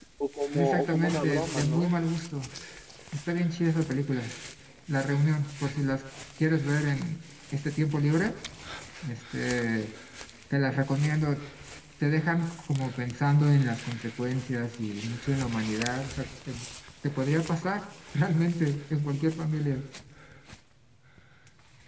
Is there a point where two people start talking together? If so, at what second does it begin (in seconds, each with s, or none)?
0.5 s